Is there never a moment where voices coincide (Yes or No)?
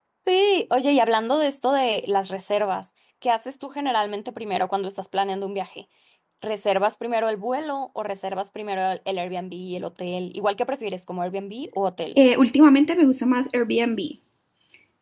Yes